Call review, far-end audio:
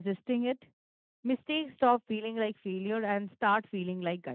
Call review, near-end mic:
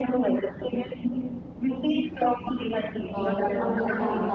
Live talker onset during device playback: 3.2 s

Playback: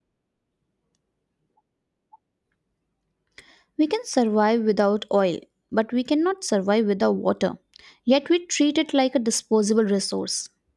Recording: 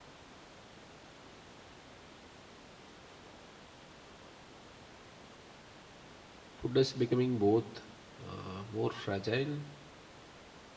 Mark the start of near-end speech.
6.6 s

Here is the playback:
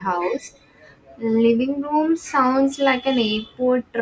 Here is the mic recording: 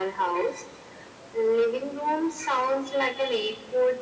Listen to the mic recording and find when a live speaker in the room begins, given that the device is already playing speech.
none

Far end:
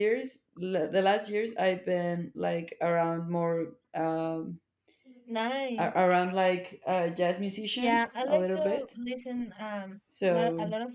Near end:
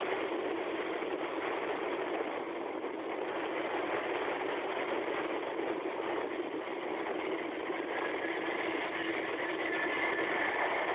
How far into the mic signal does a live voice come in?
none

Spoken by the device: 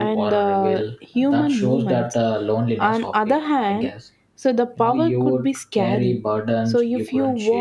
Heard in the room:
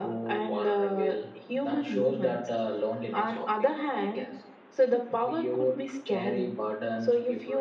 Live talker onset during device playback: none

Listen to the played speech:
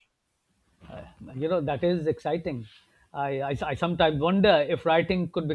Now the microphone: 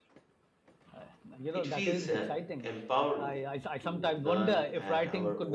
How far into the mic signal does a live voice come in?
1.5 s

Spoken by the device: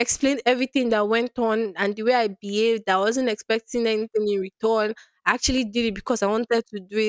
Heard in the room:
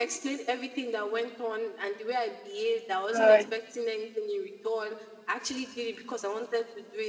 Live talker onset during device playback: 3.1 s

